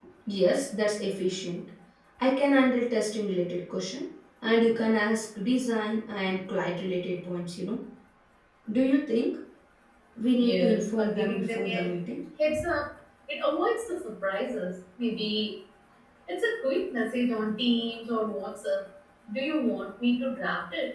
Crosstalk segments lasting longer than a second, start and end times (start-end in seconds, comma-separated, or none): 10.4-11.9